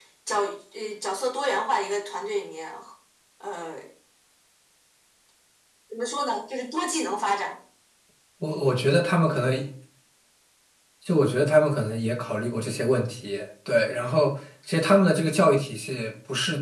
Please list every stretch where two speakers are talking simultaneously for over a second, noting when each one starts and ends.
none

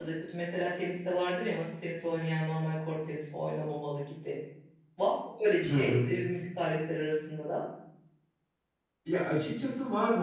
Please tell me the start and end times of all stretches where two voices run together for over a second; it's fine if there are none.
none

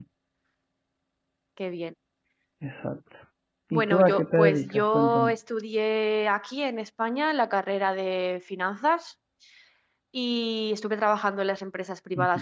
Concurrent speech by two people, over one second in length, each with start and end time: 3.7-5.3

